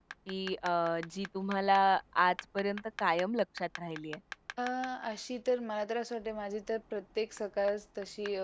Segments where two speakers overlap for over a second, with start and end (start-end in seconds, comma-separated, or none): none